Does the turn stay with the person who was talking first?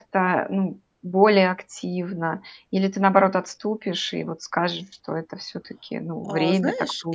No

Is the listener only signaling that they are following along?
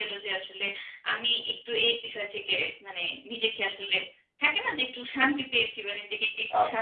No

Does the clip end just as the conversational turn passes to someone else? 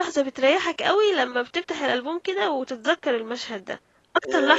Yes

